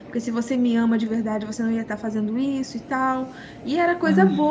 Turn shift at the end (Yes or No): No